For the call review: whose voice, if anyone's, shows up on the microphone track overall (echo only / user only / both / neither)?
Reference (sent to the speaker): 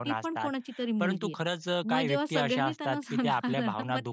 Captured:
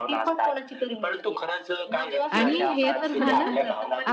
both